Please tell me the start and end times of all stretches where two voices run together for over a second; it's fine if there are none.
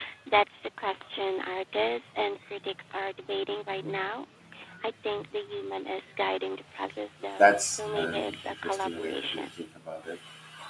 7.4-9.5

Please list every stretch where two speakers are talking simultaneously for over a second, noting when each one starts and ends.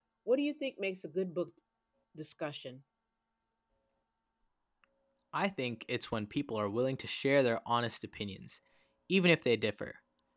none

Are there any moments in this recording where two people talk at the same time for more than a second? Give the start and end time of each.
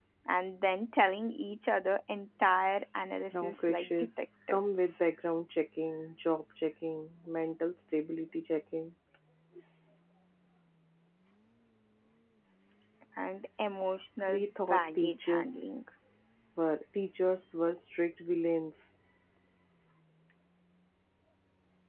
3.3-4.9, 14.3-15.7

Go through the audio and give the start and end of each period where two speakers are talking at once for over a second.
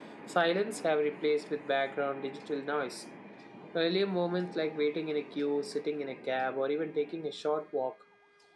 none

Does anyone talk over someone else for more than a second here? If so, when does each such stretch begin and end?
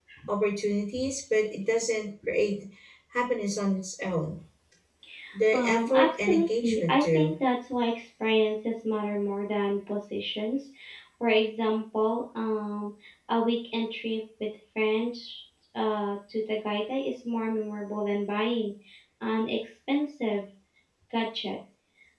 5.5-7.3

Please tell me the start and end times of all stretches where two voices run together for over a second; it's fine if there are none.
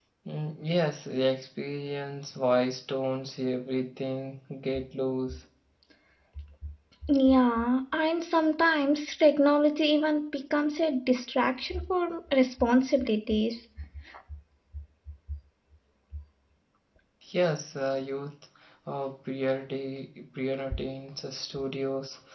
none

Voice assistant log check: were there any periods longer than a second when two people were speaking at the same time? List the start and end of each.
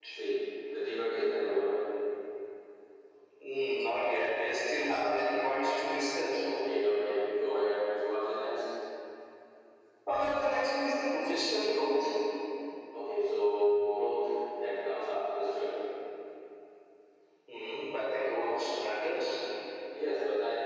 none

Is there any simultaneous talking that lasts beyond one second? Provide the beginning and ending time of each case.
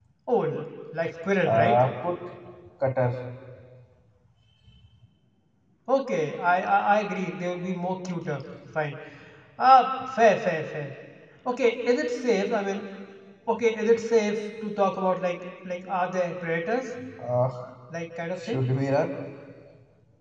none

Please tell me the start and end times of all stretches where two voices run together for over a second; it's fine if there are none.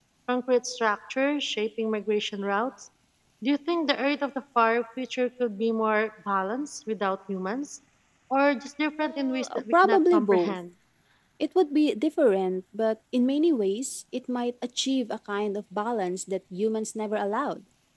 8.9-10.6

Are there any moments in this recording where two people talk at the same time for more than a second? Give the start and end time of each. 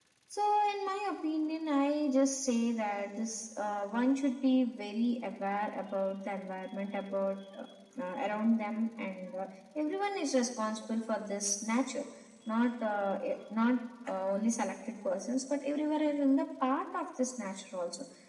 none

